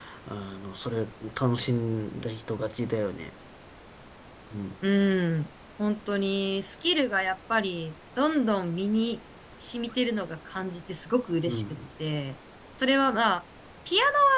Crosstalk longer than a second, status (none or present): none